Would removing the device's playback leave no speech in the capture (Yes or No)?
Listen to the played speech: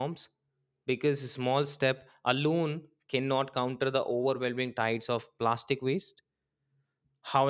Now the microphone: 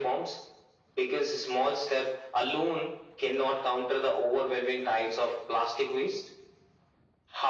Yes